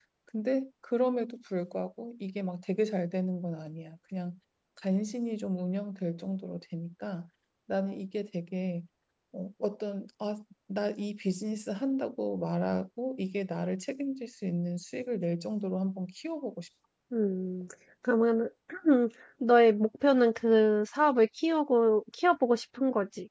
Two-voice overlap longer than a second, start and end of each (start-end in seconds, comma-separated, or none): none